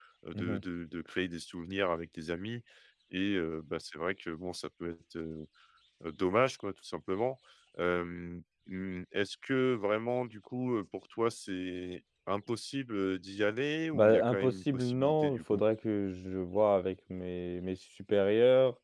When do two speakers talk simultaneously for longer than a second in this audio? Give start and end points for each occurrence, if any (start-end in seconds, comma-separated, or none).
13.9-15.6